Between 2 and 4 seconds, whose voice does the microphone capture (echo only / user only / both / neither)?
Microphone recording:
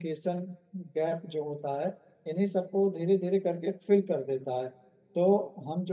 user only